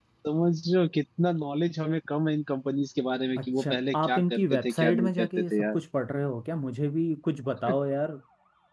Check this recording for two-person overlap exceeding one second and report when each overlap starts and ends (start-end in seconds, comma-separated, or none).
3.4-5.8